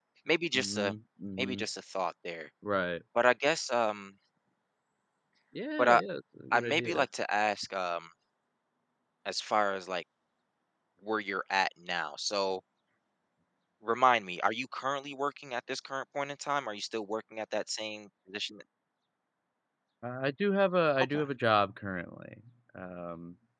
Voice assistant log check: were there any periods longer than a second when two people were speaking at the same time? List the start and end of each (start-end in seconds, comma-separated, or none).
none